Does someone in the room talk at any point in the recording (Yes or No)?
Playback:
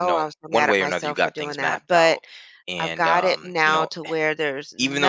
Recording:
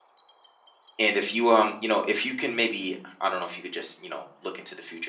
Yes